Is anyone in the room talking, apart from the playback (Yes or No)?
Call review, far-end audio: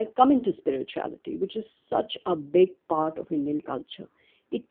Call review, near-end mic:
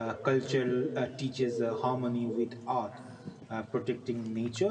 Yes